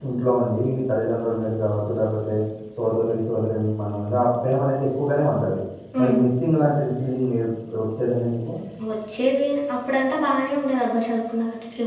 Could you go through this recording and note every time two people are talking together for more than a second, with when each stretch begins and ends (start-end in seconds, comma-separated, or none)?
none